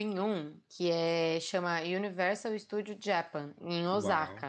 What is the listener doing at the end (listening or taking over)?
taking over